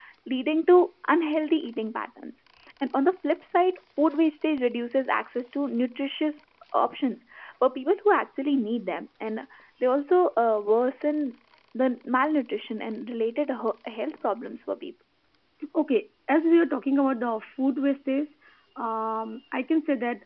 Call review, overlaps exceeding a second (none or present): none